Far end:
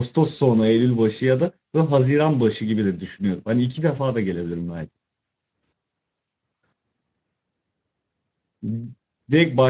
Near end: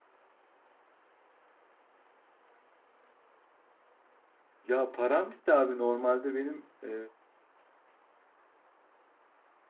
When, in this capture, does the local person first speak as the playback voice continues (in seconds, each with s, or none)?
4.6 s